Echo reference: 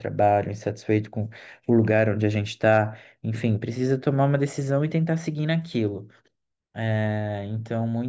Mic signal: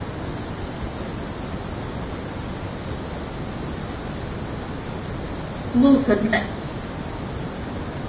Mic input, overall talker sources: user only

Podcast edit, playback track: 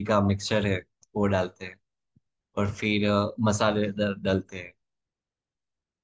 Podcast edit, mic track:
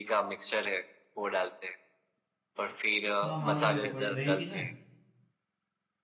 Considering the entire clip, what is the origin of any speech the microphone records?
both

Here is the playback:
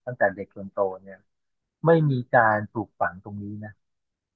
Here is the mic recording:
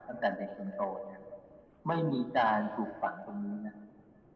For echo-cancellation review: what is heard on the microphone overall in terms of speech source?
echo only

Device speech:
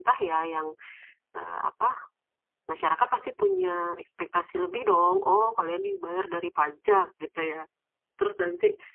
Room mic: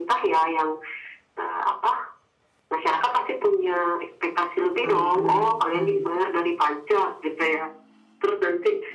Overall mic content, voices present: both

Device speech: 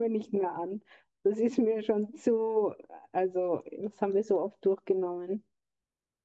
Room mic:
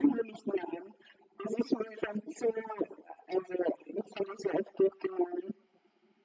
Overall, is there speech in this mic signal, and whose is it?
echo only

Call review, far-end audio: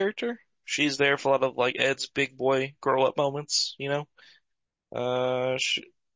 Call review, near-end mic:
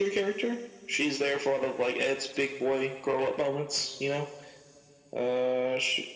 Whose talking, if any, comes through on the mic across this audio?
echo only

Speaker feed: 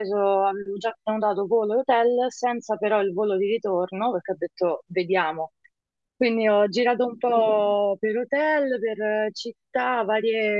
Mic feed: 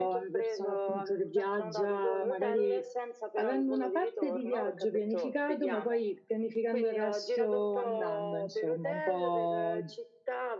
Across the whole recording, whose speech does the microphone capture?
both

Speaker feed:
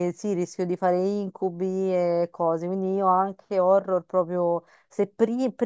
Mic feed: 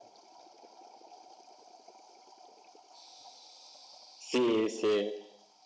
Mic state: user only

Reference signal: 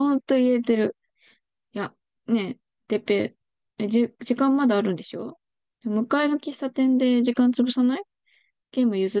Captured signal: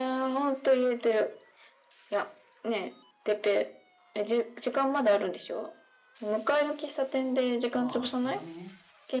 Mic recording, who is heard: both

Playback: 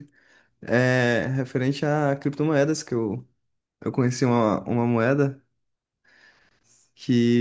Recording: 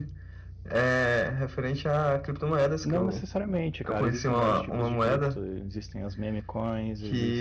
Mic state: both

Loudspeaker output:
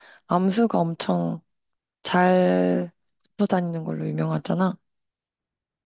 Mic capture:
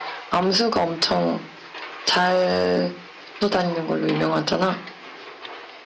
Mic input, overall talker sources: echo only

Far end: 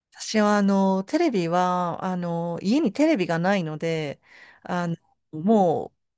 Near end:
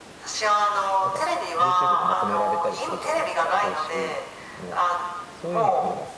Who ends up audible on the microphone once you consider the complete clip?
both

